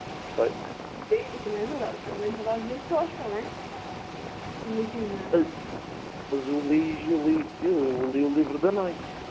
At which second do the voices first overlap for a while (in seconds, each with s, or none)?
none